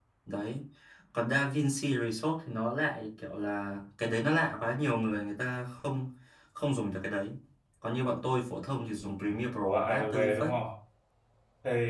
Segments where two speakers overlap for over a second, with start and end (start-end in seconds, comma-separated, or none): 9.2-10.5